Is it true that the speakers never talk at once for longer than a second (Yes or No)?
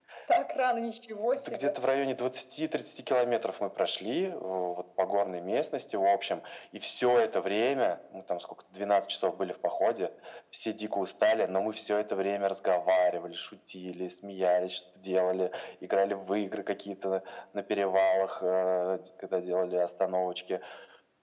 Yes